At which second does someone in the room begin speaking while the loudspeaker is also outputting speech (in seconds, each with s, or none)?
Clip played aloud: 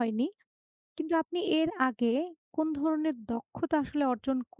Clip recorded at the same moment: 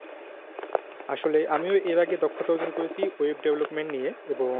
1.1 s